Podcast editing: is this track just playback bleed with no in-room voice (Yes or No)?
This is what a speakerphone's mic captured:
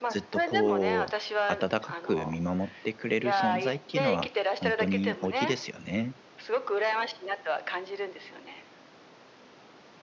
No